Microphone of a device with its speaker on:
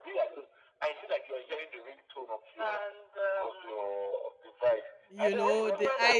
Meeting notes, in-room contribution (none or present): present